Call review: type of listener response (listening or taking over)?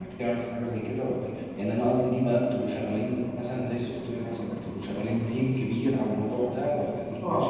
taking over